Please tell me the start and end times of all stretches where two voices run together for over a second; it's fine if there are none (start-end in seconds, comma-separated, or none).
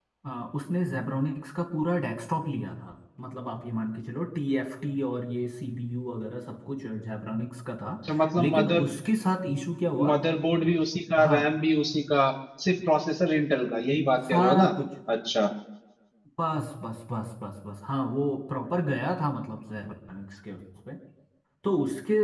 none